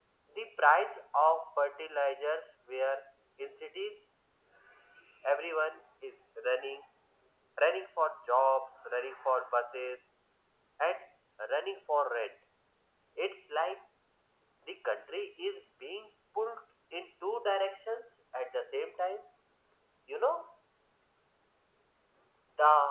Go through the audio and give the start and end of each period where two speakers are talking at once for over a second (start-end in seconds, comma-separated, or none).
none